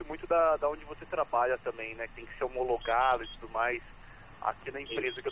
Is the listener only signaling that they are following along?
Yes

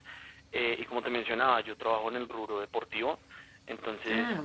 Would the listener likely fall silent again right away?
Yes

